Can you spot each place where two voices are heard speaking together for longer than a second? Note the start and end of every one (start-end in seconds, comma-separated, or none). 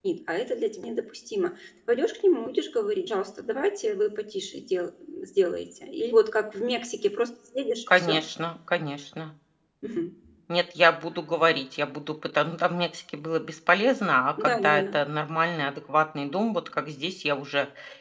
none